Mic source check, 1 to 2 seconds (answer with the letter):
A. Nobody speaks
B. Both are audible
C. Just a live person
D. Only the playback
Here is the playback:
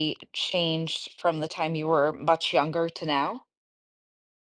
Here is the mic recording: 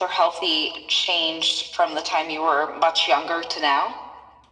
D